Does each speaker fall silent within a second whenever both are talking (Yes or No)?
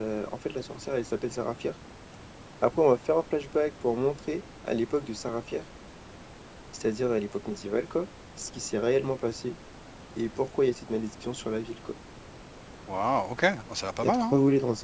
Yes